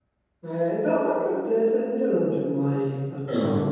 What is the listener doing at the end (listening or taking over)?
listening